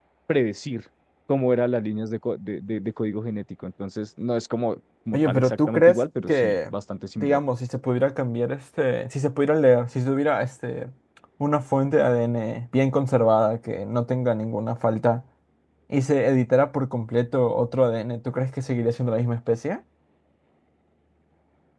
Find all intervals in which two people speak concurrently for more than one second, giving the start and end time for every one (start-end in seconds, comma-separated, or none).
5.1-6.7